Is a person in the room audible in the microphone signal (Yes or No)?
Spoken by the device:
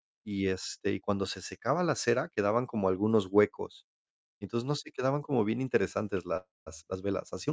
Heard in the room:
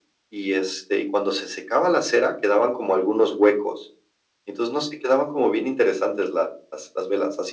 No